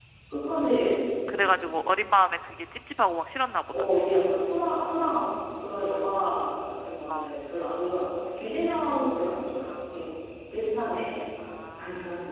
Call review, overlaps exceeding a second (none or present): none